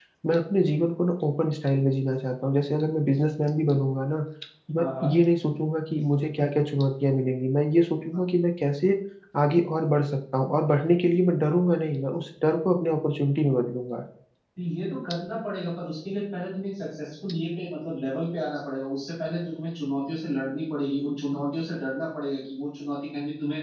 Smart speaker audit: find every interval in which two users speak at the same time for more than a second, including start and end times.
none

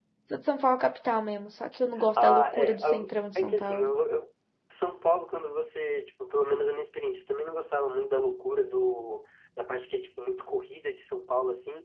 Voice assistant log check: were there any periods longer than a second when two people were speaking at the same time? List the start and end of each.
2.2-3.9

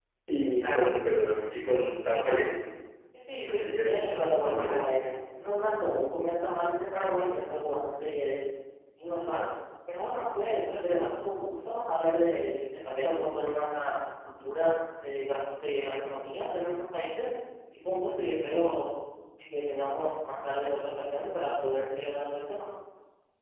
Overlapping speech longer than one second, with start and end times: 3.4-4.8

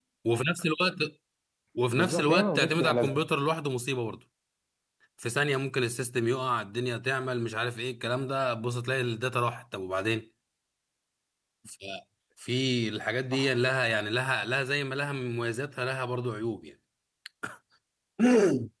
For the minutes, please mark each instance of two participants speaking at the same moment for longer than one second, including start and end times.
1.9-3.2

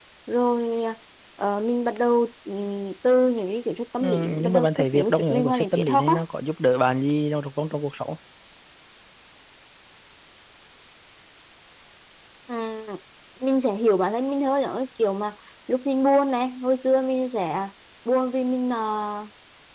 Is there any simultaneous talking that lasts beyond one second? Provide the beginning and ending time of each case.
4.0-6.2

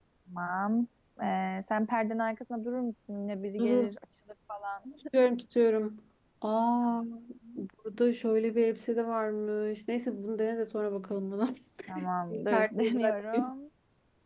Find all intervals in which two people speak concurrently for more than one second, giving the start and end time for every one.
12.3-13.5

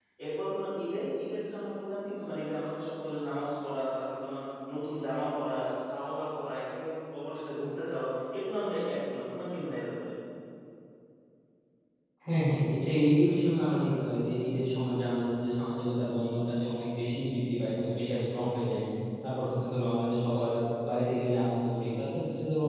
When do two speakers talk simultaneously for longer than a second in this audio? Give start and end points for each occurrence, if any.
none

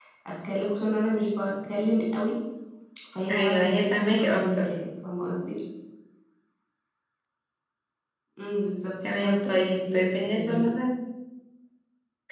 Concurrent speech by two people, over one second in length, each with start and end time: 3.3-4.7, 9.2-10.7

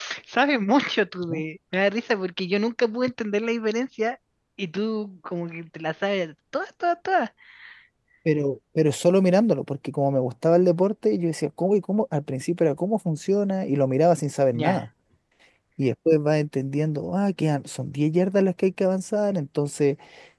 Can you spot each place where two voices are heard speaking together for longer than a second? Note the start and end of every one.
none

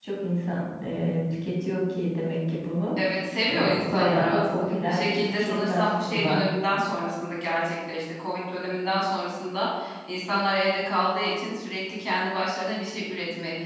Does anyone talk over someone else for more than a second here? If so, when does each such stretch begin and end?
3.5-6.4

